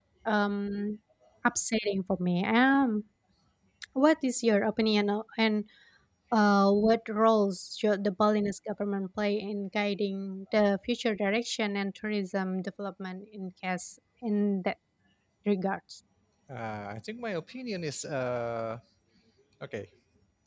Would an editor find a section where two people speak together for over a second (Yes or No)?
No